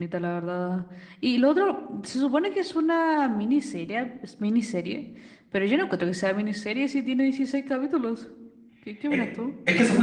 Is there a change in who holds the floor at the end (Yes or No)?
Yes